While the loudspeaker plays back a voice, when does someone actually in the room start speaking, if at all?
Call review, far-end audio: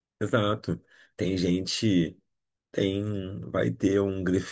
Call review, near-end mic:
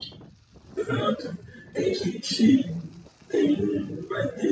none

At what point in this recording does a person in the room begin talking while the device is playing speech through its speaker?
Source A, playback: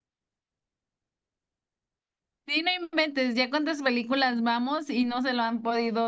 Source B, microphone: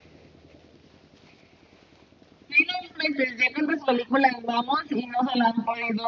none

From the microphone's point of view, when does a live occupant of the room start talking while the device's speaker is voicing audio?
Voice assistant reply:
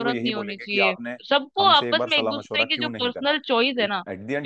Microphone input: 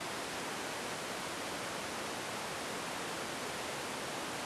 none

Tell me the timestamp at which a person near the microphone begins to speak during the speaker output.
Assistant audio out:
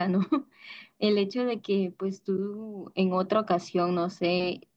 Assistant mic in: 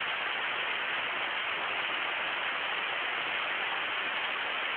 none

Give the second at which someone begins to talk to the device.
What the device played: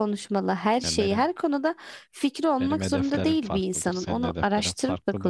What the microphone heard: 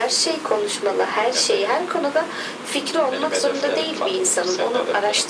none

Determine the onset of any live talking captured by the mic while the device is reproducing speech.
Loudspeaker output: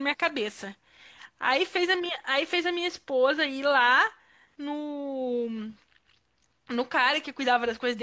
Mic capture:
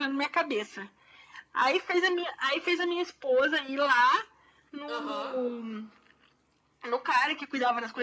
4.9 s

